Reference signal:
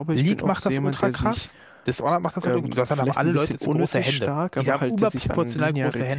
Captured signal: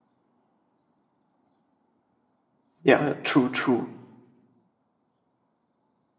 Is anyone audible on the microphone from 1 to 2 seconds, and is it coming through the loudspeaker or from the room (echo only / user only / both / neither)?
neither